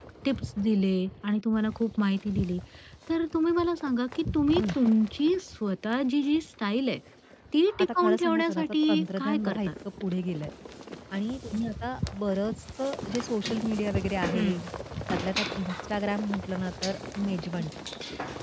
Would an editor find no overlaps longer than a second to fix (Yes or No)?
No